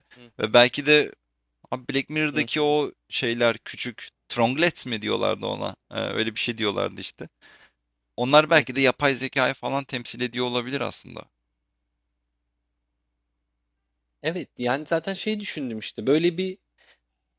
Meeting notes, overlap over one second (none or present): none